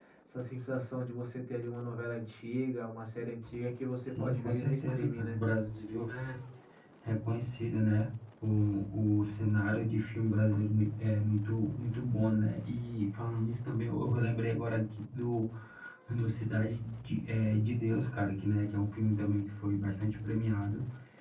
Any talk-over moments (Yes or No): Yes